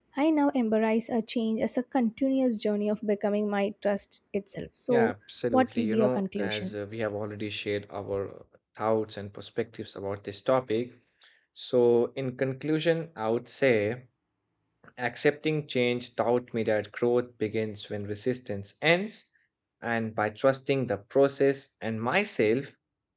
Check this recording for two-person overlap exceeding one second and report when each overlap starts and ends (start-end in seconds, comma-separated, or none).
5.5-6.7